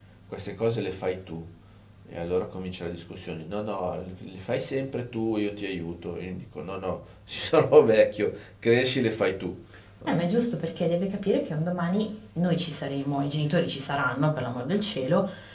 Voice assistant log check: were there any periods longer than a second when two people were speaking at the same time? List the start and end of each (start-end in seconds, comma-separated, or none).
none